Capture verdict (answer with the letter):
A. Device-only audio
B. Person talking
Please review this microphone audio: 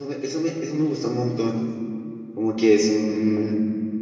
B